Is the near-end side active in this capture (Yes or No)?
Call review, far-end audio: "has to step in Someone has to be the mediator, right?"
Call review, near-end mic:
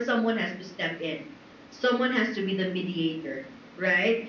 No